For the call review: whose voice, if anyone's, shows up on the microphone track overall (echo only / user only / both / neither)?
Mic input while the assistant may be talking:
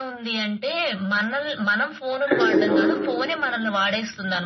both